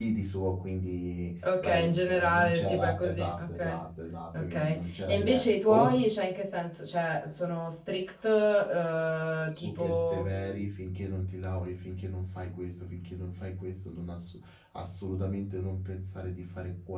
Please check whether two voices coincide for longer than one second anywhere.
Yes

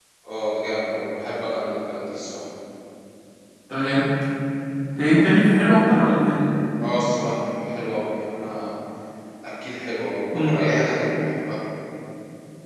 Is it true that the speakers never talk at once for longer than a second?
Yes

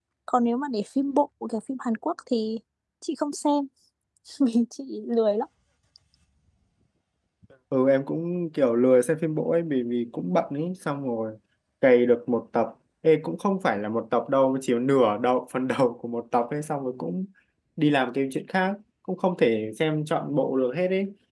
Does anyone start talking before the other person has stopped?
No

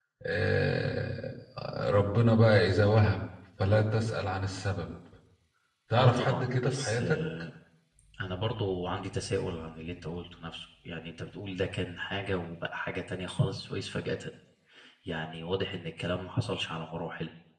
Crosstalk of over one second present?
Yes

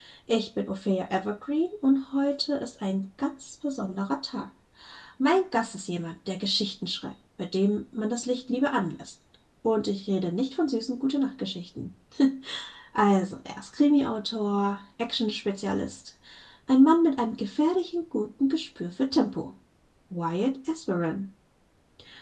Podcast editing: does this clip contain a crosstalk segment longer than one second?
No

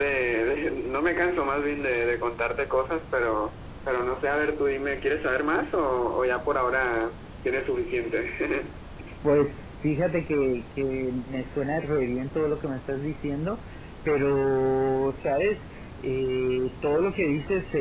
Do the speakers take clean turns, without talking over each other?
Yes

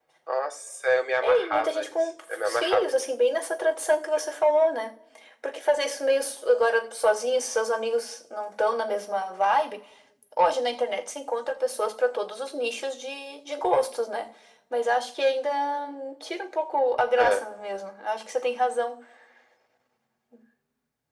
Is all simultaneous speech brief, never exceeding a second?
No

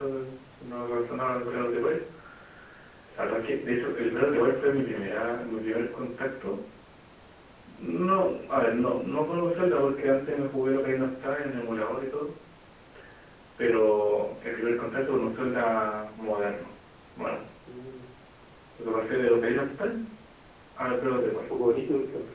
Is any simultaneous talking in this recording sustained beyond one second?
No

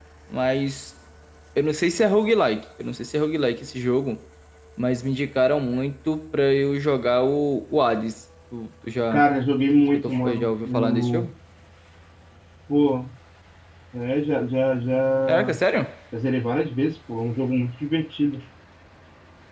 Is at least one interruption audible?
Yes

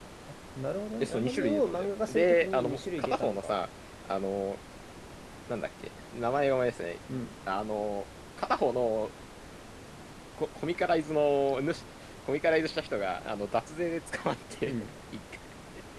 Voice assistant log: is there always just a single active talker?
No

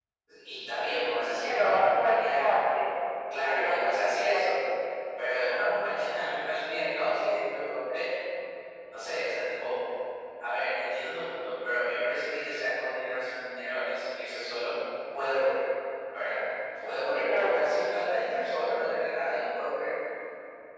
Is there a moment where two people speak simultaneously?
Yes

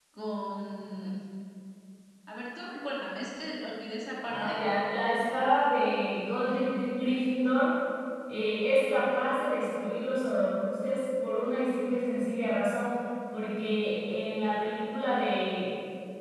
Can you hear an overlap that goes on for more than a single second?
No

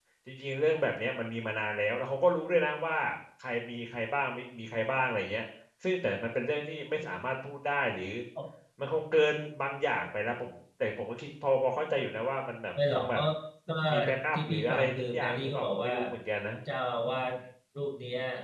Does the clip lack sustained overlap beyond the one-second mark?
No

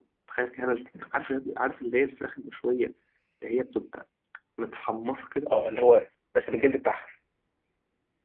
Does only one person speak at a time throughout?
Yes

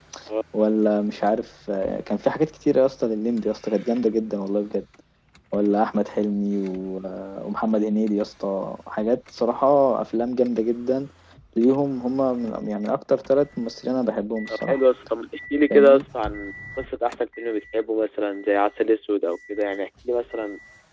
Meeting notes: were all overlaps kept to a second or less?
Yes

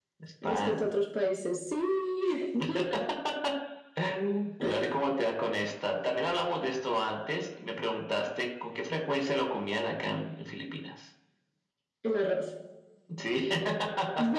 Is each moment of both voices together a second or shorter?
Yes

